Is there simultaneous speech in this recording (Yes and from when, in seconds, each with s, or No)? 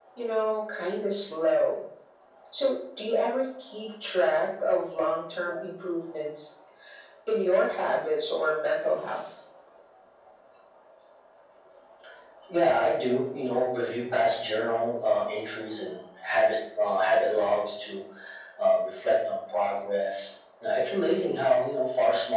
No